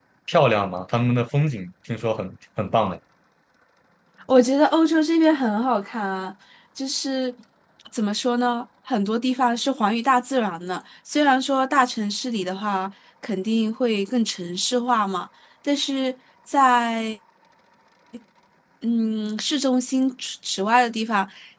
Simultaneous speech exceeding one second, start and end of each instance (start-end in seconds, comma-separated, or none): none